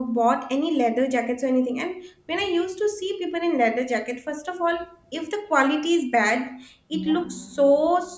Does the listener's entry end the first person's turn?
No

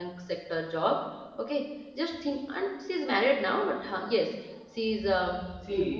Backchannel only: No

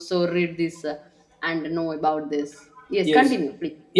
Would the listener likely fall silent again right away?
No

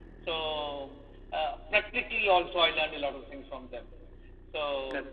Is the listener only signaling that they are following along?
Yes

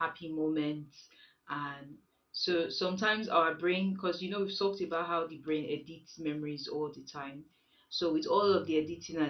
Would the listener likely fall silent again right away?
Yes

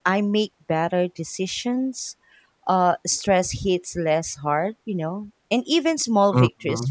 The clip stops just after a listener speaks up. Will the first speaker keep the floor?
Yes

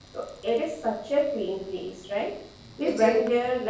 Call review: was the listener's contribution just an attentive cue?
Yes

